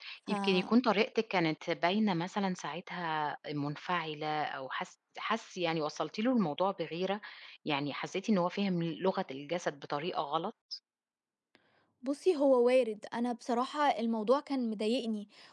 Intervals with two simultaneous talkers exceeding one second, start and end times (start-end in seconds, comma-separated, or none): none